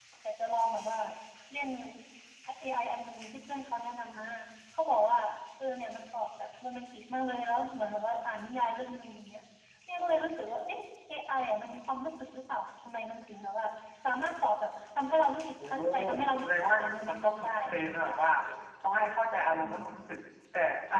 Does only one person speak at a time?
No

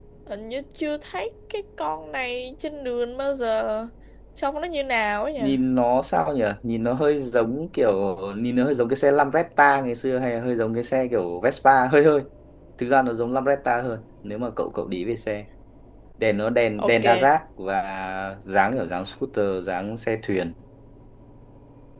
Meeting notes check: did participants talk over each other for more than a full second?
No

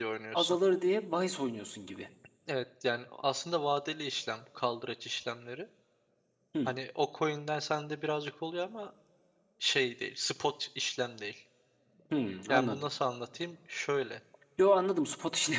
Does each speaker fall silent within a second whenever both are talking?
Yes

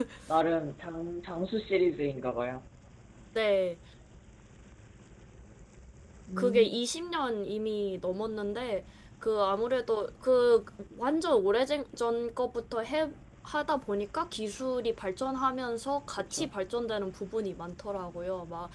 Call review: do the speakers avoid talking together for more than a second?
Yes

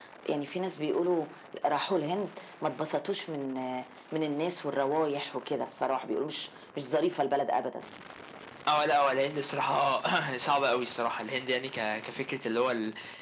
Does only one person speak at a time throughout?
Yes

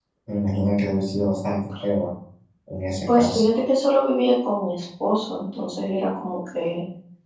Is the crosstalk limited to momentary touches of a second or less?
Yes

